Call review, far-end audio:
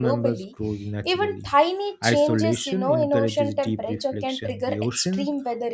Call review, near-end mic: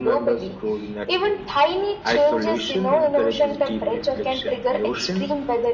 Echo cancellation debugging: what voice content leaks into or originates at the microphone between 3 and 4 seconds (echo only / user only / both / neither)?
echo only